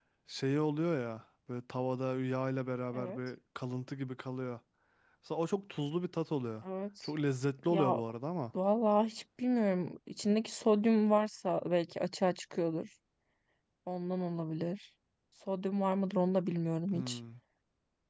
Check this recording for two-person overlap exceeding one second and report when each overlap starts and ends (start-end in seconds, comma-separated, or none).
none